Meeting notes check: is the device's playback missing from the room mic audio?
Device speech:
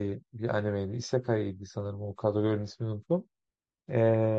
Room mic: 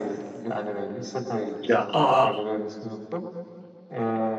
No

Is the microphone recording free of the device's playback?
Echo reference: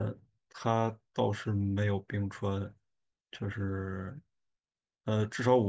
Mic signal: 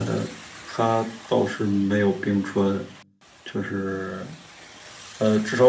No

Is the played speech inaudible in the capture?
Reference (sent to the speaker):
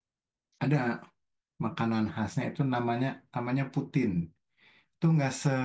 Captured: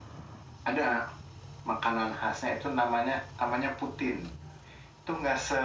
No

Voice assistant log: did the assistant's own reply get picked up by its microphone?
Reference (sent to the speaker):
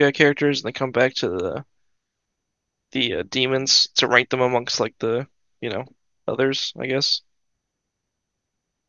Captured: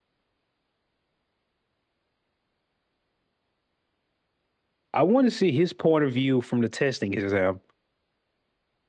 No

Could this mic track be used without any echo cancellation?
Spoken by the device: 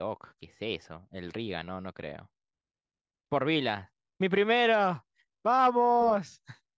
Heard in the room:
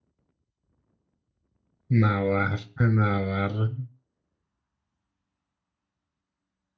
Yes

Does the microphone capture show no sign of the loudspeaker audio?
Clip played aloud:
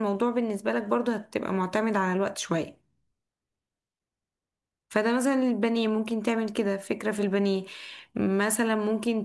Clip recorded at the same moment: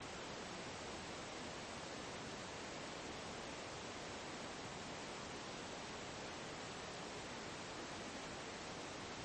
Yes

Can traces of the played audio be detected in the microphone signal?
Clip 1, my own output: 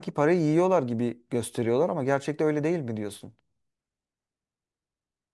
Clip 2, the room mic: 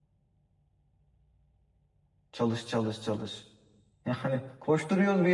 No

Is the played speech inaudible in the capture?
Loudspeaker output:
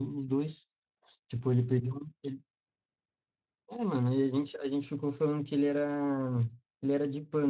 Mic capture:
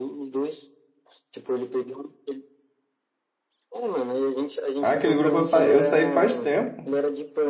No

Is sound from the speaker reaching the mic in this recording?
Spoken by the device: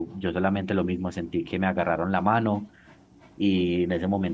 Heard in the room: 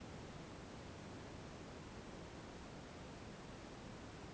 No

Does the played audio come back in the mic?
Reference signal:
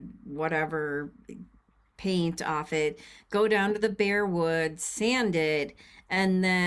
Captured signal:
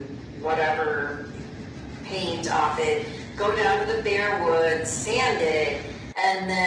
Yes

